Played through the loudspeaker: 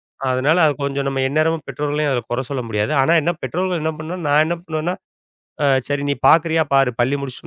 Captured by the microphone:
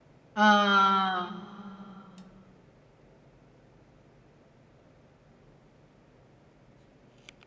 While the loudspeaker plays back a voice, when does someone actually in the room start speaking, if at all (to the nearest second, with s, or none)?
0 s